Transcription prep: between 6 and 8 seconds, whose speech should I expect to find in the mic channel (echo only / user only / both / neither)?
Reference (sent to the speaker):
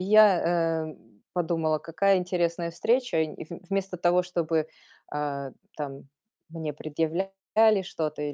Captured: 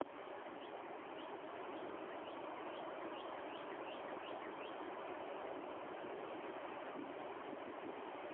neither